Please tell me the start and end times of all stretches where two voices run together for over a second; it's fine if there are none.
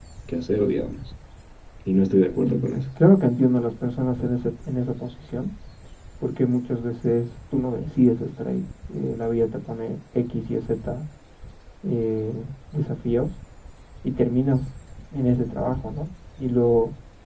none

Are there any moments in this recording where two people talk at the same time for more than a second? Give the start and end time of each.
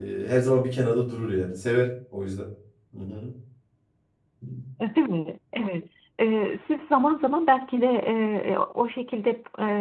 none

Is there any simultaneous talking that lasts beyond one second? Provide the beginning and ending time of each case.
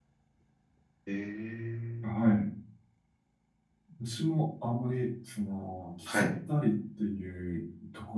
none

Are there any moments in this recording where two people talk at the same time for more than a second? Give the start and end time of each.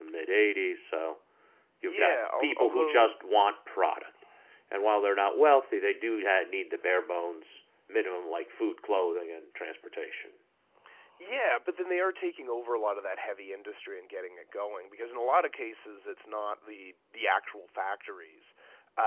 1.8-3.1

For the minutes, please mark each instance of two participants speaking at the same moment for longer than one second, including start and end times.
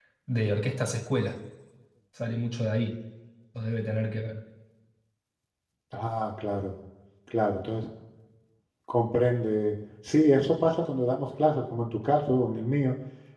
none

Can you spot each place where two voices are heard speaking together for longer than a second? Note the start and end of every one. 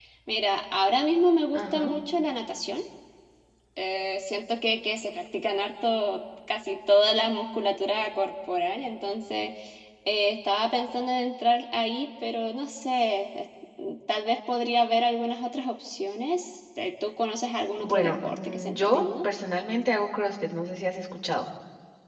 17.8-19.3

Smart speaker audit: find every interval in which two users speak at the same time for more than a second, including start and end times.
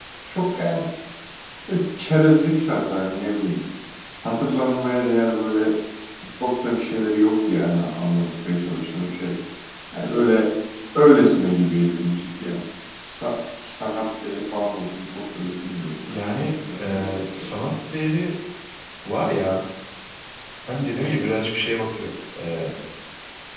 16.1-17.4

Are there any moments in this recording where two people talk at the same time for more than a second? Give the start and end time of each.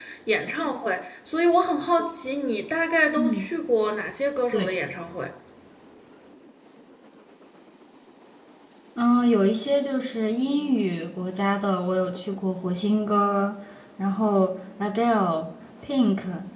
none

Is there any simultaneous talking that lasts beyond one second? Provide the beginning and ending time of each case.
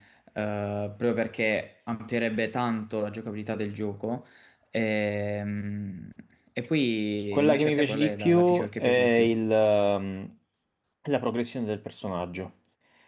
7.3-9.3

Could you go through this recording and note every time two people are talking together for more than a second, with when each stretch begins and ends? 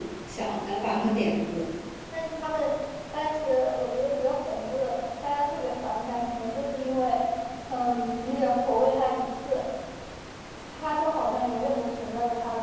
none

